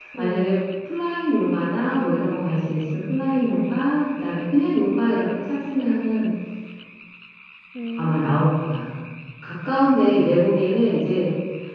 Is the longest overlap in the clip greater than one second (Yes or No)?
Yes